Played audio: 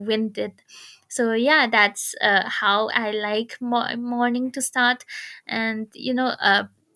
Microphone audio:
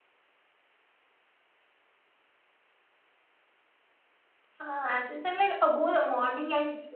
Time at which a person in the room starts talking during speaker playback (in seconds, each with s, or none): 4.6 s